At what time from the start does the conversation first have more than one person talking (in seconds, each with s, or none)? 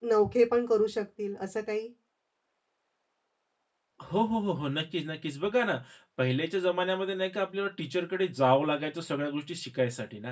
none